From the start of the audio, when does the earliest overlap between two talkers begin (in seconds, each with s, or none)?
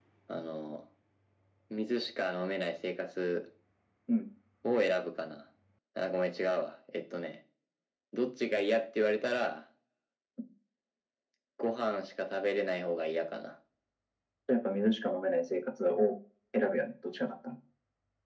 none